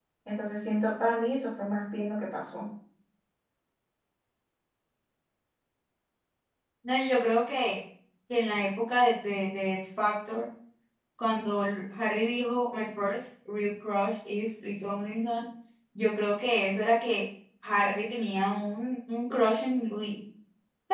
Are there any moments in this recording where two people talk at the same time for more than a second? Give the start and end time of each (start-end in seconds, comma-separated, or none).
none